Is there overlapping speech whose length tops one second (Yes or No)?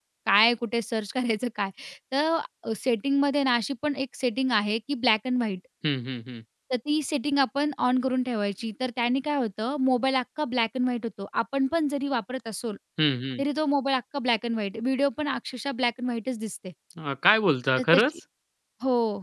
No